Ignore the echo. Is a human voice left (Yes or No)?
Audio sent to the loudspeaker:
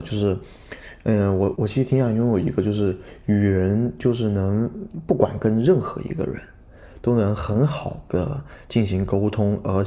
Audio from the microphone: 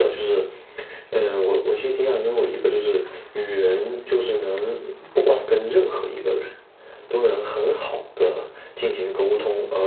No